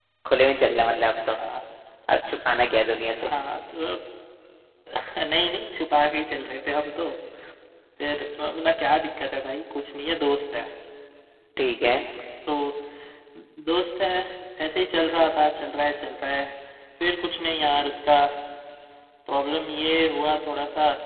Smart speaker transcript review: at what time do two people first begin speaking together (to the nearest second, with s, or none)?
none